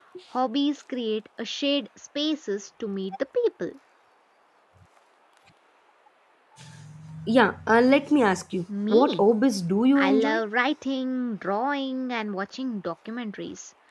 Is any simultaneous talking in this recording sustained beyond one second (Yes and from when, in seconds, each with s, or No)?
No